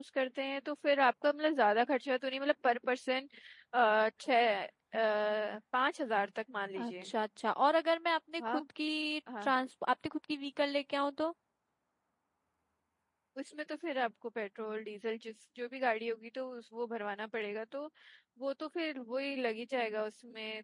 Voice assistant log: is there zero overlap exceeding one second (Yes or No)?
Yes